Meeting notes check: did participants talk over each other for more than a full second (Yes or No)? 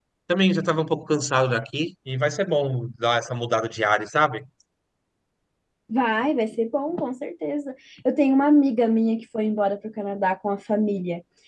No